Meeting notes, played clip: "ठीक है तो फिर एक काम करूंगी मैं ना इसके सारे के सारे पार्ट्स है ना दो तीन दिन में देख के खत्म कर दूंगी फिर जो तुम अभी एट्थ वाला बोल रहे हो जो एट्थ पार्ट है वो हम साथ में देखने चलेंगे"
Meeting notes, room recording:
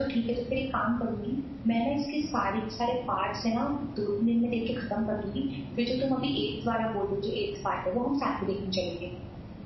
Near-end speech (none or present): none